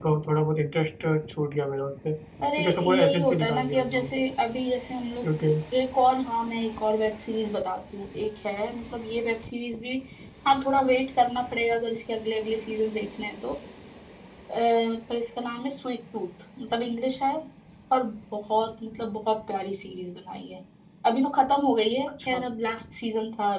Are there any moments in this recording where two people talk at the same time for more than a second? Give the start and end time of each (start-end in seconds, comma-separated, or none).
2.6-4.1